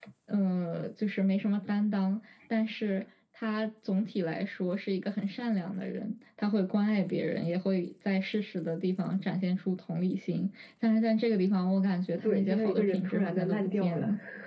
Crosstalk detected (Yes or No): Yes